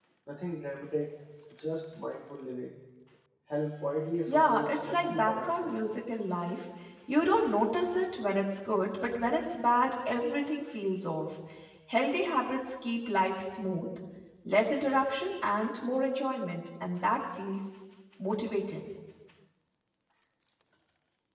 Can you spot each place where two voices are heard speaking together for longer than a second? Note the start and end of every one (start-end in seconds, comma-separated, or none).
4.3-5.8